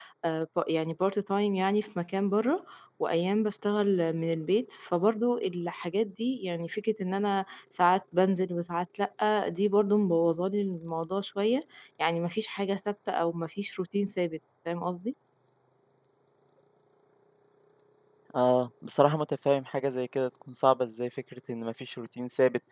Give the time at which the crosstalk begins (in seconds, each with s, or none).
none